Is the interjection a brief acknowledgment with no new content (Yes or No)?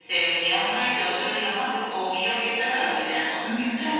No